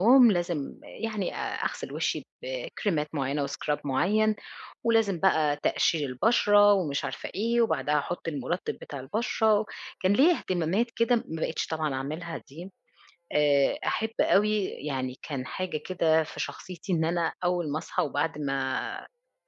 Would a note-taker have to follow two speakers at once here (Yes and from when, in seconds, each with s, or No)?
No